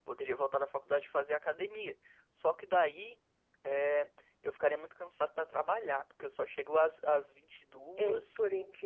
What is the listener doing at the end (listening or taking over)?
taking over